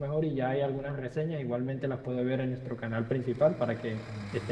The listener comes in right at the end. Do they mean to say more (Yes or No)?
Yes